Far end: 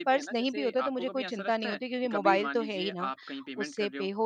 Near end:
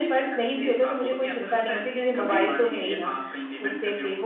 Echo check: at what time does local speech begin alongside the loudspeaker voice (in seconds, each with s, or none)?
none